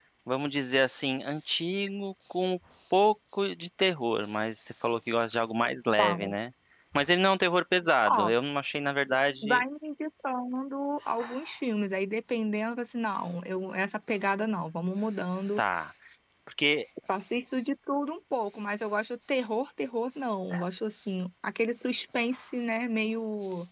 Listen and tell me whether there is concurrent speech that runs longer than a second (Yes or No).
No